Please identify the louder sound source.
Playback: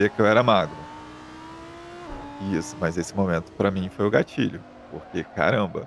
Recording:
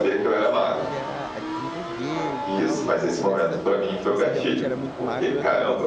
echo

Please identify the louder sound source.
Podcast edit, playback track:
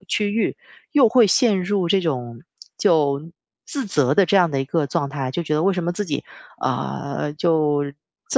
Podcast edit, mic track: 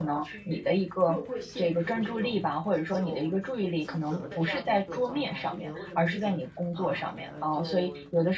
user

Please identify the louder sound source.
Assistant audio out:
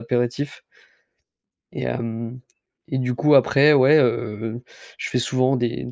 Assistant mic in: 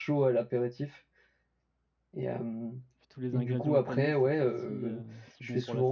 echo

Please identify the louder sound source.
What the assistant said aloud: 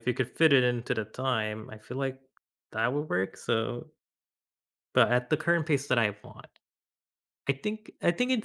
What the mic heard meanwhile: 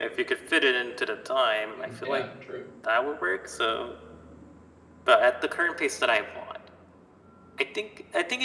echo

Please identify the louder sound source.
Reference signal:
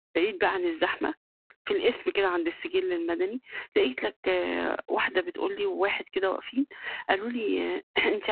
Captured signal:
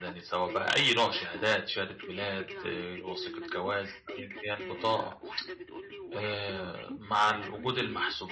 user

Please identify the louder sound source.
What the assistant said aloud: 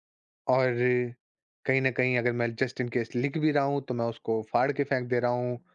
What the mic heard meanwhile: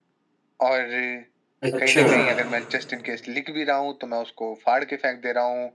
user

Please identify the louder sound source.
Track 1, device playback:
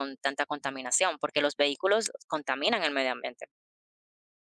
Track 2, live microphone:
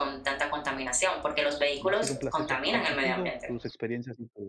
echo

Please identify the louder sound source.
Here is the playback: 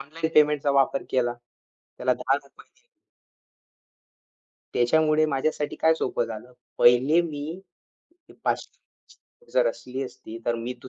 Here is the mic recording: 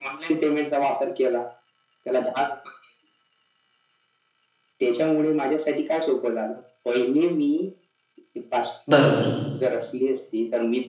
user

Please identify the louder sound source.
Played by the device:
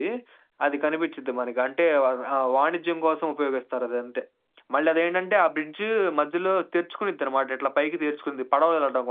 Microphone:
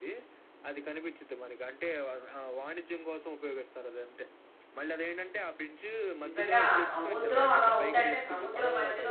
user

